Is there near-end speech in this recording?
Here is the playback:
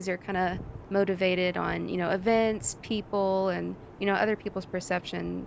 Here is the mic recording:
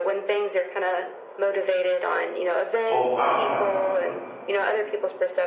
Yes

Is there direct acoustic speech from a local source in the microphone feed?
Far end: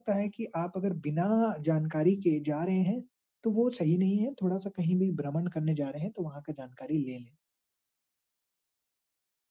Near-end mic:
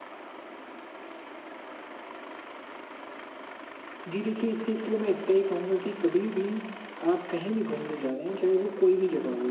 Yes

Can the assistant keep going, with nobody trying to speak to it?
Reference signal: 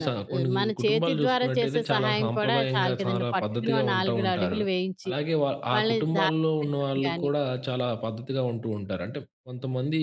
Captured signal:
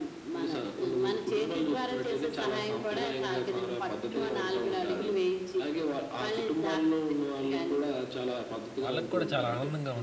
No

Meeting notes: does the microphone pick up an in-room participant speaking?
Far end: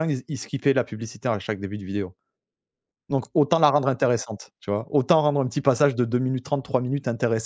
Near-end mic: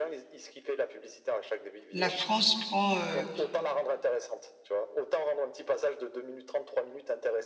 Yes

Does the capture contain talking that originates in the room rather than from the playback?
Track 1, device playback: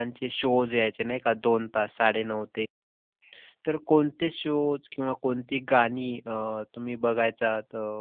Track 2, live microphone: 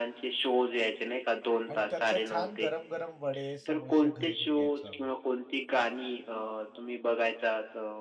Yes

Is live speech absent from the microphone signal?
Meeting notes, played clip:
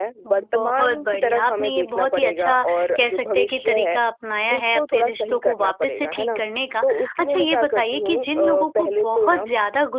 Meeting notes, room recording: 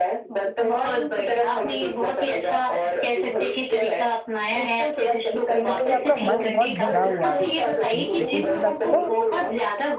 No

